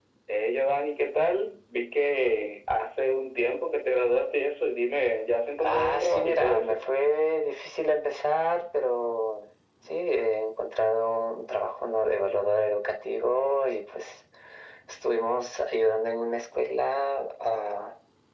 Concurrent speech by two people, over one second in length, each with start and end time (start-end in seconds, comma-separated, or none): 5.6-6.8